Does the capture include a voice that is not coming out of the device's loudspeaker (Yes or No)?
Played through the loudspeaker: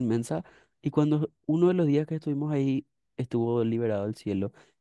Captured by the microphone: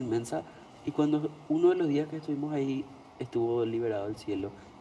No